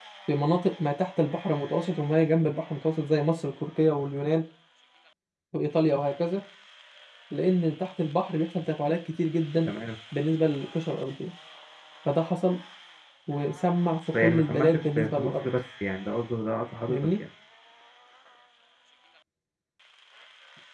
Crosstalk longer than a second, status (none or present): present